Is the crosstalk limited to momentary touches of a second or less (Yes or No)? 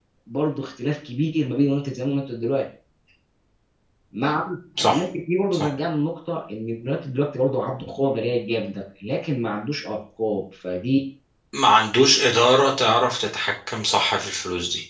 Yes